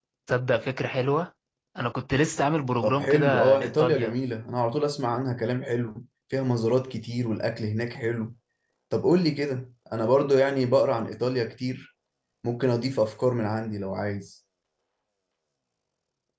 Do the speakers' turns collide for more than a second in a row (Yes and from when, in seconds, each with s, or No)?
Yes, from 2.8 s